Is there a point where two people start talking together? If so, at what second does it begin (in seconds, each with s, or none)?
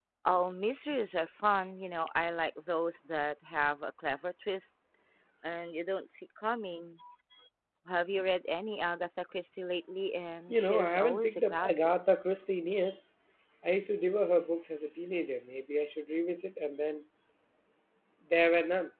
10.5 s